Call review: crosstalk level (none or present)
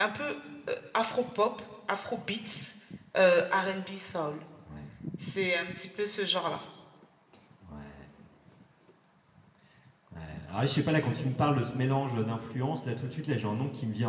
none